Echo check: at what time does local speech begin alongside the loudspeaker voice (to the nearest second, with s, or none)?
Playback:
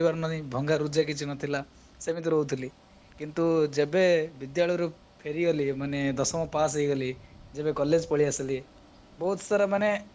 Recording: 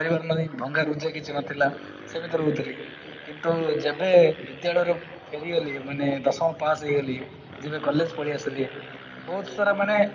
none